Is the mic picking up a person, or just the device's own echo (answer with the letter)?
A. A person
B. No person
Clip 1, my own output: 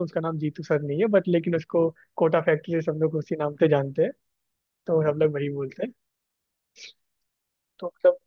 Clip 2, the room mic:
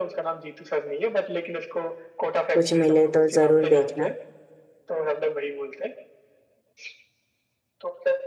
A